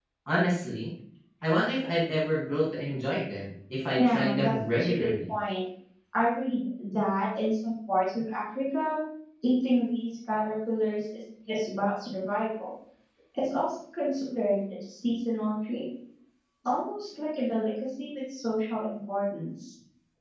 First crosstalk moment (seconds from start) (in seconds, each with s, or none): 4.0 s